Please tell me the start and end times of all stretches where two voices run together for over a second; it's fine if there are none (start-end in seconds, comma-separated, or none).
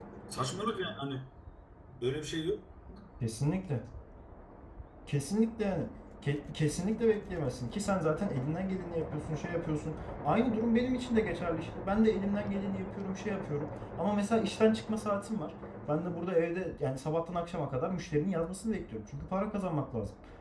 none